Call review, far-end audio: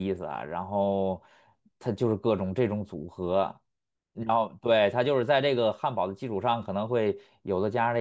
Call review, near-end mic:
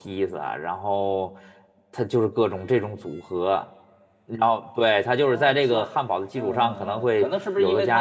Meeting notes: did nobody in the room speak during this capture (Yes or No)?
No